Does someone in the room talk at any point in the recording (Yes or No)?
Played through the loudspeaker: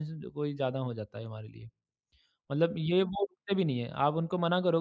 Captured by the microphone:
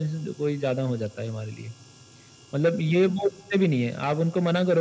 No